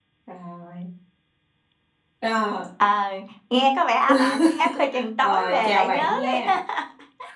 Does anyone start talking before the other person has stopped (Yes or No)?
Yes